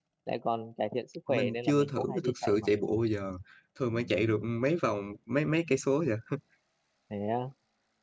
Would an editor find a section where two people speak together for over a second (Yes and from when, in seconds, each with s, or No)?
Yes, from 1.3 s